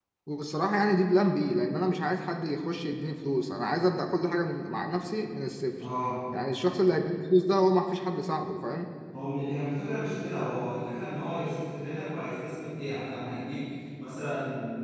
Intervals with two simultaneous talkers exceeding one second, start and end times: none

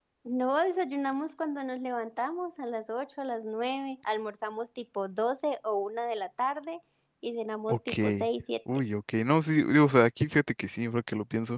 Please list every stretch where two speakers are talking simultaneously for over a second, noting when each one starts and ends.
none

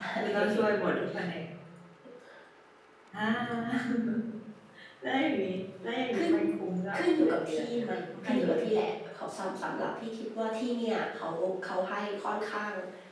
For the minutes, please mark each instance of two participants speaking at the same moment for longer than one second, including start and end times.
6.9-8.8

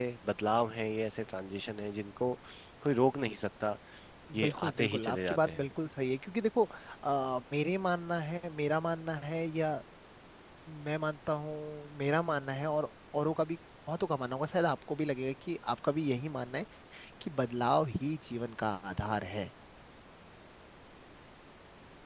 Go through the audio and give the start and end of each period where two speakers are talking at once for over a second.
4.4-5.7

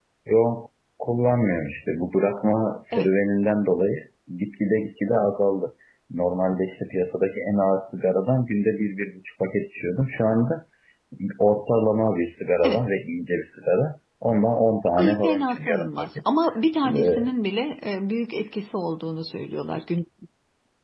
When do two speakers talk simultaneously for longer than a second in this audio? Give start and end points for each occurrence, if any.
15.0-16.2

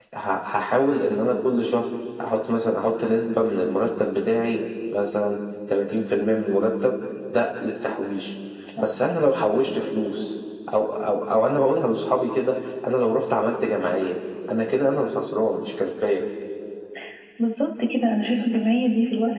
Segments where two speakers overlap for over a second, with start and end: none

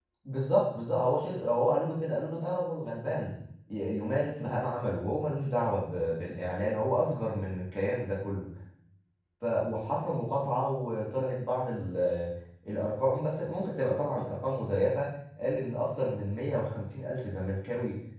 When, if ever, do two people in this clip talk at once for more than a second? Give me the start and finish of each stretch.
none

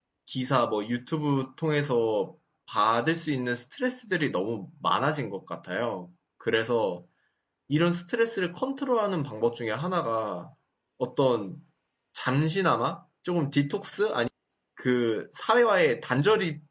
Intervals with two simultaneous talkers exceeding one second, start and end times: none

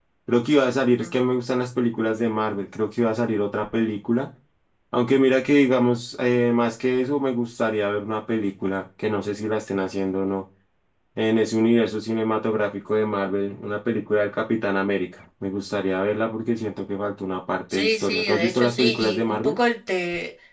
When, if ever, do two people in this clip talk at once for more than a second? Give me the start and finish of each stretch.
17.7-19.6

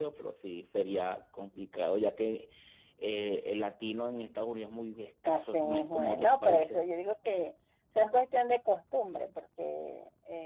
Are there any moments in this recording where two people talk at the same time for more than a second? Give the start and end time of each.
5.2-6.8

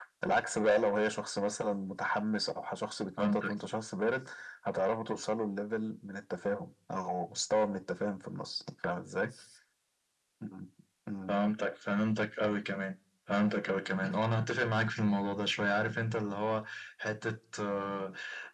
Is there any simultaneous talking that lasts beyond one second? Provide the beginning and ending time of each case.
none

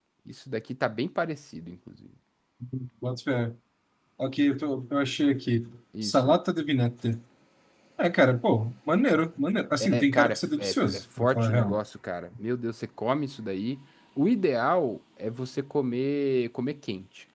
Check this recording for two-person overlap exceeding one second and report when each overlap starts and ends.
9.8-11.8

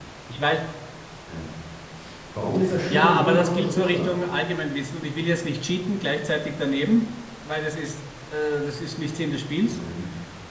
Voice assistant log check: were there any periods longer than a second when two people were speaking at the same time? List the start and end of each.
2.9-4.2

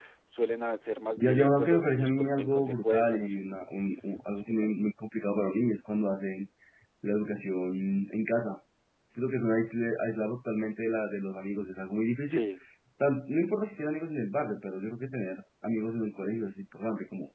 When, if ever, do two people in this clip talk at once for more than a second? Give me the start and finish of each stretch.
1.2-3.4

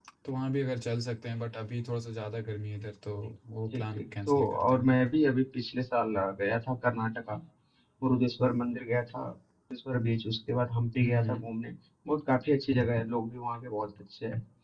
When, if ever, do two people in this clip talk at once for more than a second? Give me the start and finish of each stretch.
3.7-5.0

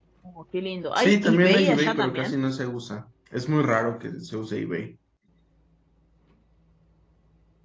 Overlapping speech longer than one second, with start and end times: 1.0-2.4

